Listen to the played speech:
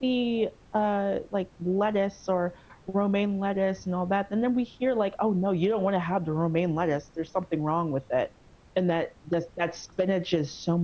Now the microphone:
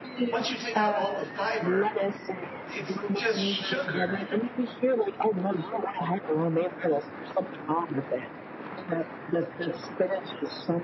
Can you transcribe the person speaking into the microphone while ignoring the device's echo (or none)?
once you take out all the fiber it's just sugar.